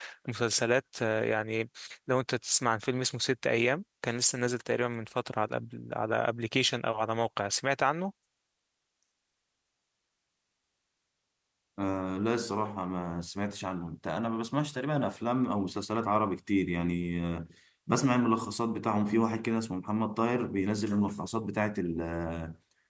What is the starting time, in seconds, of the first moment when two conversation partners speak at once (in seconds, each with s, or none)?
none